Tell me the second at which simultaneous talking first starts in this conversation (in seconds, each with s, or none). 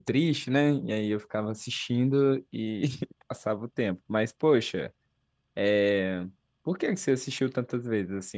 none